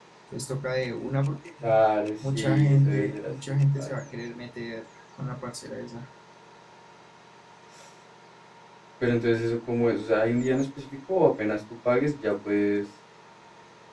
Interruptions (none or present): present